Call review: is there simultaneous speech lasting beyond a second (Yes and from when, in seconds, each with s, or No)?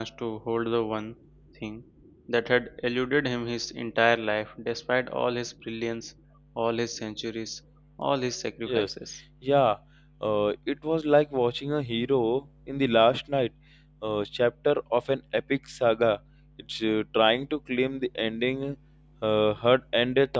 No